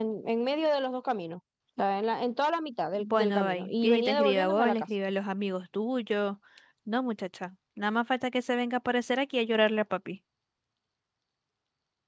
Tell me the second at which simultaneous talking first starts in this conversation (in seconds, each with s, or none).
2.9 s